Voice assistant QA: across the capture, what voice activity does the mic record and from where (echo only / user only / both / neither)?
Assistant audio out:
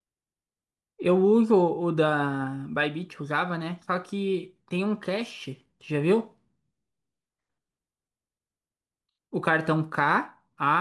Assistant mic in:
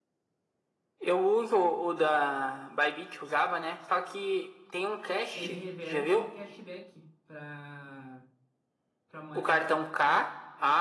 both